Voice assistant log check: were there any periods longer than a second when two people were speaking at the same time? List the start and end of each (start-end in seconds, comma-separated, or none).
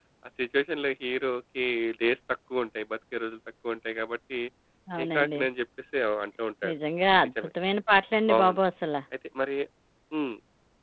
none